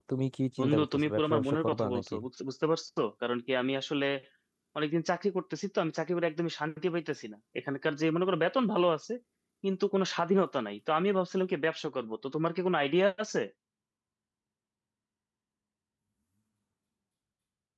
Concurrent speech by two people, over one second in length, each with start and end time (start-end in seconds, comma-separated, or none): 0.6-2.1